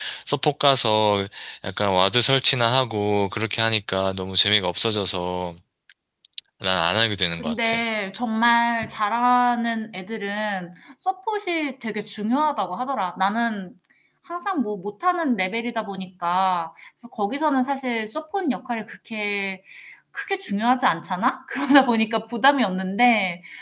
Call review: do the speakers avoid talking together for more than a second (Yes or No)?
Yes